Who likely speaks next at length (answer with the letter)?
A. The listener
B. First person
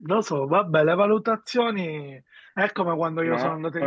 B